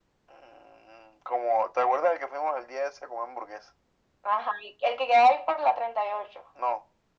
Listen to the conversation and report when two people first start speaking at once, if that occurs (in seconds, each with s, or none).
none